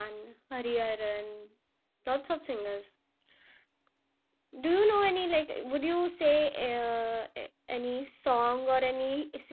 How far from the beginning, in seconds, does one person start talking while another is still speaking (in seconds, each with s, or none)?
none